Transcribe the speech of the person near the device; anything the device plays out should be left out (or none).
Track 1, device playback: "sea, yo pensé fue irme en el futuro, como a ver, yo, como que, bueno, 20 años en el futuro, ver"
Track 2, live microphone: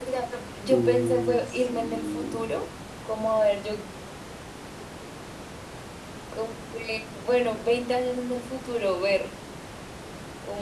Uy, sí.